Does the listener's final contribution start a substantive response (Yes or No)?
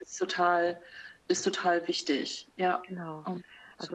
Yes